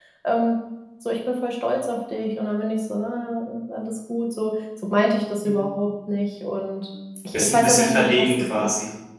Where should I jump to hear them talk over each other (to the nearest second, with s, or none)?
7 s